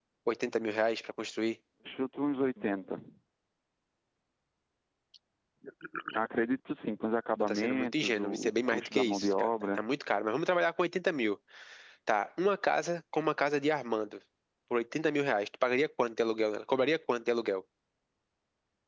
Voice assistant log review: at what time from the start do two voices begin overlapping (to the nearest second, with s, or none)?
7 s